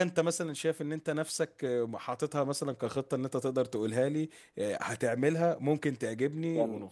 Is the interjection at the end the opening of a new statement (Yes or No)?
Yes